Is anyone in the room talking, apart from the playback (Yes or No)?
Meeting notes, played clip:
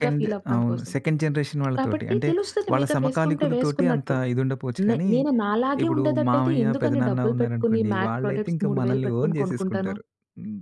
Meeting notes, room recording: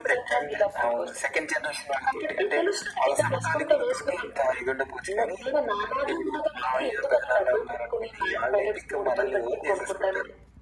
Yes